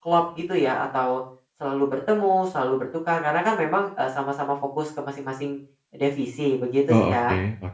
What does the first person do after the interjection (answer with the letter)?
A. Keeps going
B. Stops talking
B